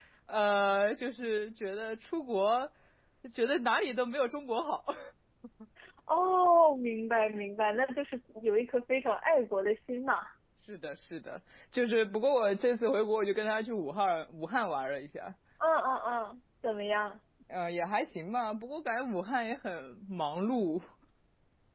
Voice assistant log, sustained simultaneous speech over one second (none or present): none